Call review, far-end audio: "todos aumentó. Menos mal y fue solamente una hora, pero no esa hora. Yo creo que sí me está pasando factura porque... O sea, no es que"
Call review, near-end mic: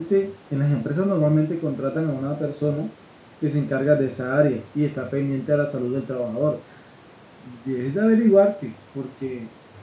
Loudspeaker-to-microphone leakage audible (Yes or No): No